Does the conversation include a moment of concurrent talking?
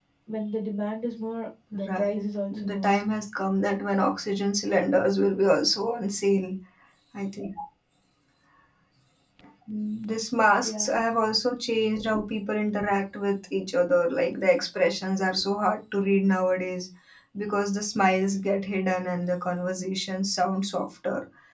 Yes, from 1.7 s

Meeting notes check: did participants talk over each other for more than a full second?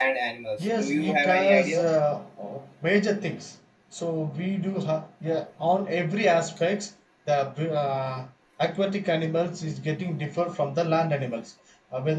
Yes, from 0.6 s

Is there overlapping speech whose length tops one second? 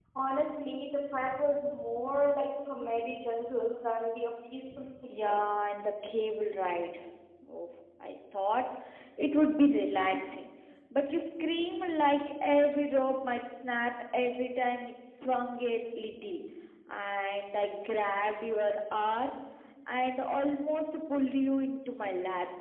No

